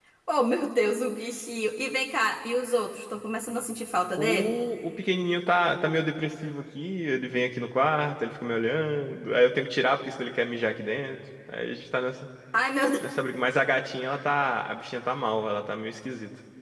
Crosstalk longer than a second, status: none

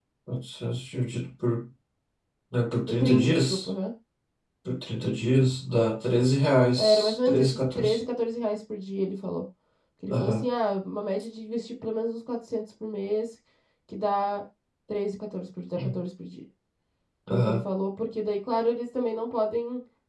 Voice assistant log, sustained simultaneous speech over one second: present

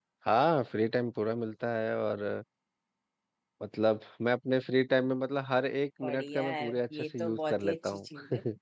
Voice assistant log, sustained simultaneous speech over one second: present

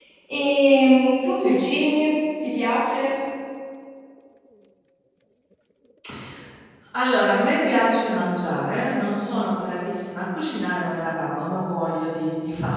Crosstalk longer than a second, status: none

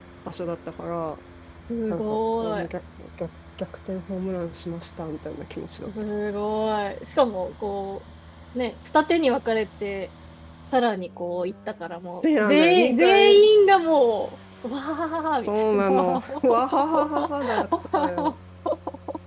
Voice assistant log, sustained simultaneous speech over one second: present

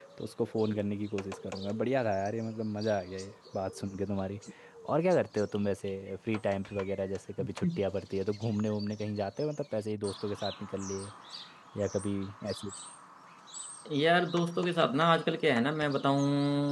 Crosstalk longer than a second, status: none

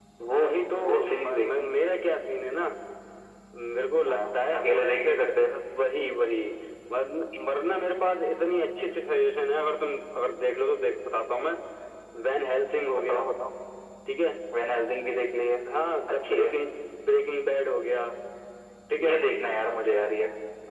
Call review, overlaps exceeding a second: present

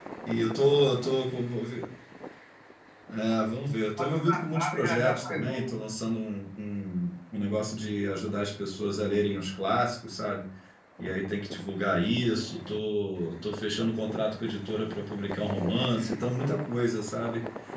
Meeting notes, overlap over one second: present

